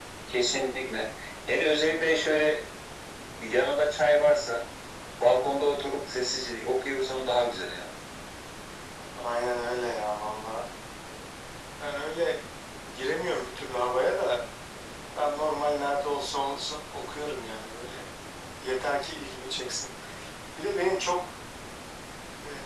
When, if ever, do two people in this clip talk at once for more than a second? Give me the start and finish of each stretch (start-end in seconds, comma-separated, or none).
none